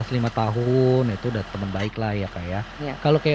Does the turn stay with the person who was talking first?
Yes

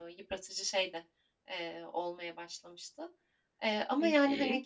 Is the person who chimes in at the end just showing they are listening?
Yes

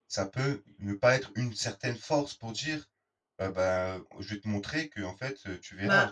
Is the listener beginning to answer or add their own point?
Yes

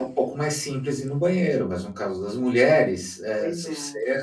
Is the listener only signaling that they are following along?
Yes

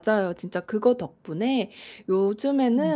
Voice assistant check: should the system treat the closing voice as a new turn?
No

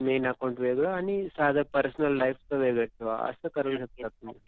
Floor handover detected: Yes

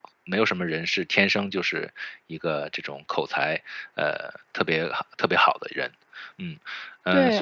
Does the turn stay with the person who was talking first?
No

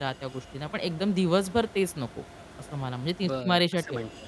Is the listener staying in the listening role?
No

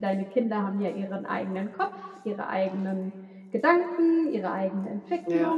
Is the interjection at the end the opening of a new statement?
Yes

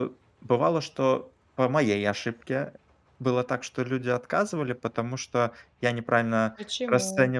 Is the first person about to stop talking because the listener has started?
No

